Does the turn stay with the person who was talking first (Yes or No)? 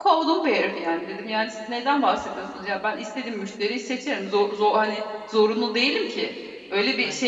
Yes